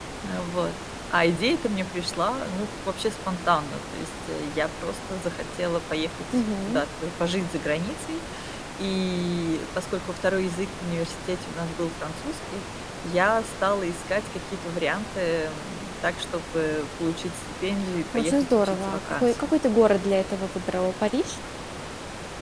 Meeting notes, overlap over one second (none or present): present